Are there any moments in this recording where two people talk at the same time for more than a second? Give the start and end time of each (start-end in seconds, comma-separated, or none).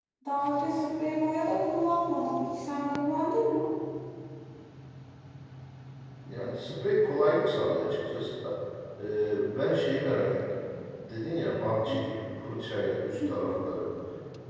none